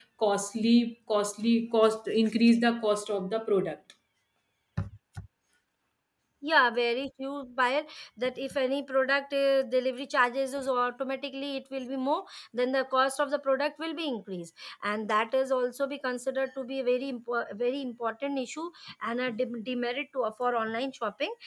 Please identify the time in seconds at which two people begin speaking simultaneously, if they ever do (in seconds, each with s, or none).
none